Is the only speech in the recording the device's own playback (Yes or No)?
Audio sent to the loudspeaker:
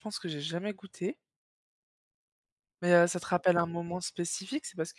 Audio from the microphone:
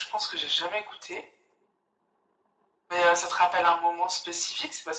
Yes